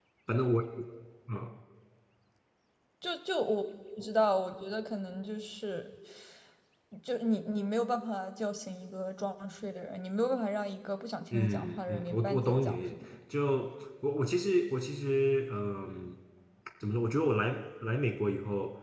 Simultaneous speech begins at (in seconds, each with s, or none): 11.3 s